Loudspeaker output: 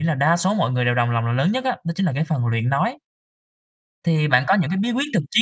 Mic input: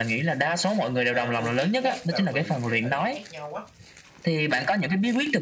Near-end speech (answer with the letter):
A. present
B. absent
A